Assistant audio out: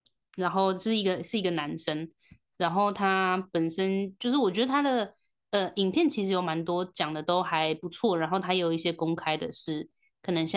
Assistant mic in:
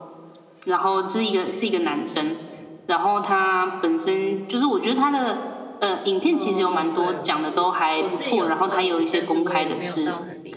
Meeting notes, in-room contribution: present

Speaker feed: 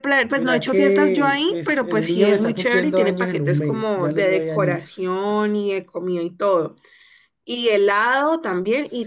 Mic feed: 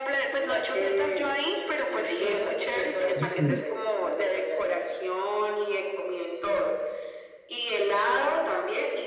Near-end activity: present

